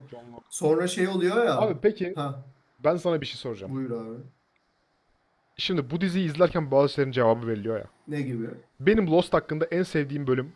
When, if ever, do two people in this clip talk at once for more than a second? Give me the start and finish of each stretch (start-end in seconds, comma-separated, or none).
none